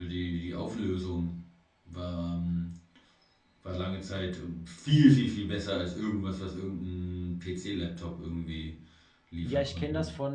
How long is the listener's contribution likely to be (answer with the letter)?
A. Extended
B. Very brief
A